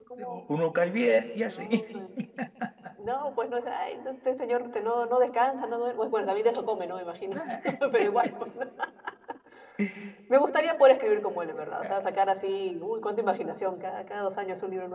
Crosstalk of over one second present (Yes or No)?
No